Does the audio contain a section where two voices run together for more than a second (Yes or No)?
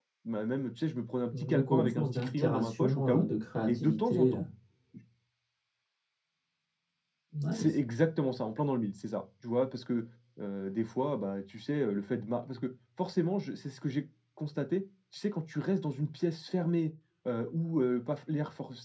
Yes